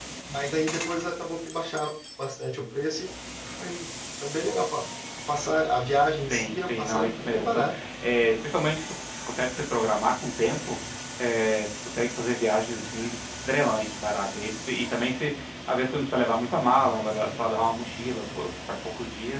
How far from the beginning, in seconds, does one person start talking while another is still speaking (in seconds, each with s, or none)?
6.2 s